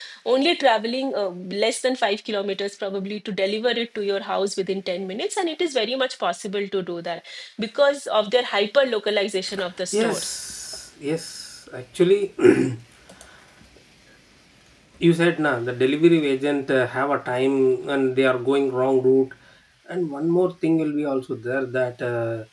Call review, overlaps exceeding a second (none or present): none